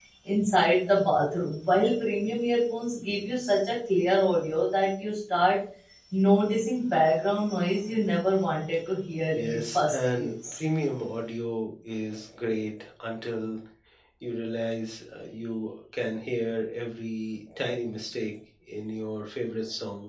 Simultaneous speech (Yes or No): Yes